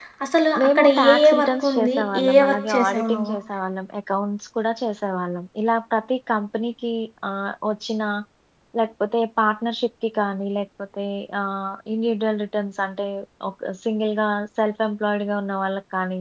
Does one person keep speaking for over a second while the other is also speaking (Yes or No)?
Yes